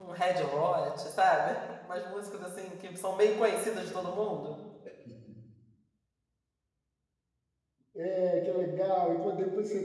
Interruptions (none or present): none